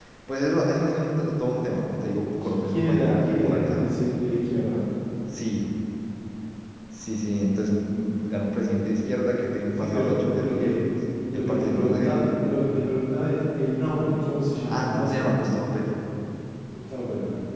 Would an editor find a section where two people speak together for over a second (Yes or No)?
Yes